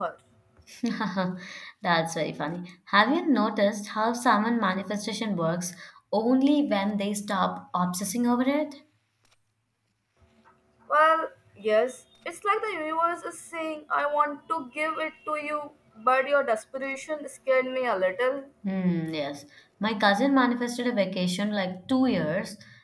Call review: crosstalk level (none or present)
none